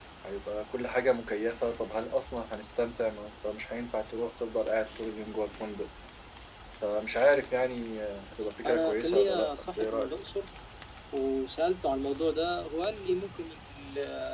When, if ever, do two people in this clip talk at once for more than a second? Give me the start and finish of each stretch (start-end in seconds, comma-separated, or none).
8.7-10.1